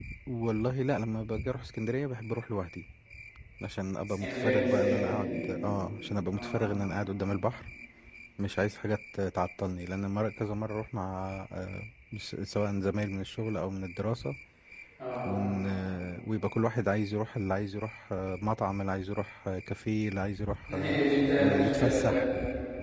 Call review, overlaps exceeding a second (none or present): present